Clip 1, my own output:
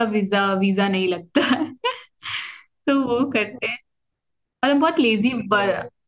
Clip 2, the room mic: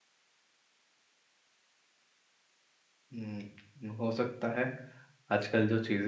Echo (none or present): none